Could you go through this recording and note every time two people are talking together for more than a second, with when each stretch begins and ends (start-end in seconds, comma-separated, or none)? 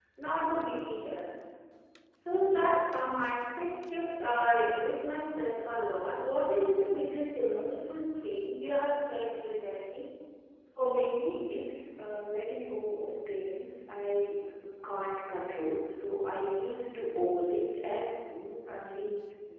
none